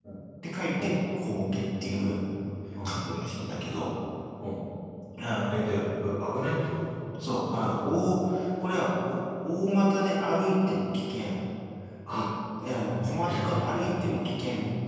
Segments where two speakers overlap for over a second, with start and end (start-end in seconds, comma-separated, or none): 13.0-14.2